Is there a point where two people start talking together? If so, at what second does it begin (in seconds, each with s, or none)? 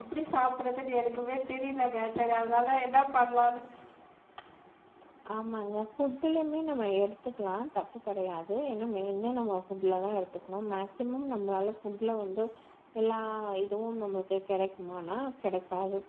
none